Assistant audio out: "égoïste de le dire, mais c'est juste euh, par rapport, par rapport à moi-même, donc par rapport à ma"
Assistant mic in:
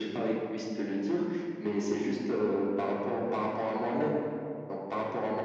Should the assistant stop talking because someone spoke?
No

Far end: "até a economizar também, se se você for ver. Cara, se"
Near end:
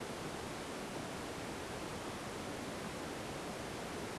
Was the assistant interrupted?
No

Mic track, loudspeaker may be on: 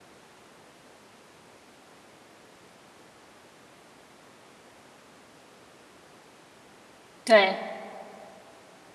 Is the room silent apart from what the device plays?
No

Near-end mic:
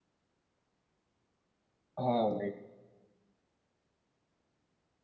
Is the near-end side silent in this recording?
No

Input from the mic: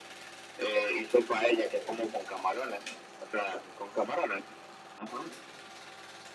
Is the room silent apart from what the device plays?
Yes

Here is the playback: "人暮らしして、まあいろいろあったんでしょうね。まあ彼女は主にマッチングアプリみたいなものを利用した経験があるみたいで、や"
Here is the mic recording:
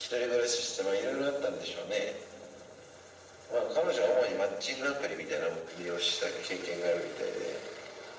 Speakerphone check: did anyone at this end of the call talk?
No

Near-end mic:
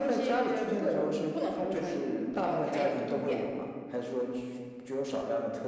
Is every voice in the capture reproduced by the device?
Yes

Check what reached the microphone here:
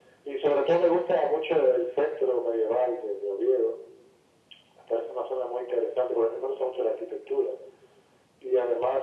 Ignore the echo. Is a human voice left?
No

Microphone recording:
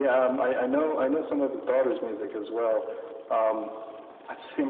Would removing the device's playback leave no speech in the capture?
Yes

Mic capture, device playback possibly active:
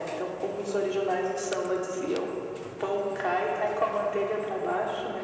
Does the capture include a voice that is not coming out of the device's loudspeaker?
No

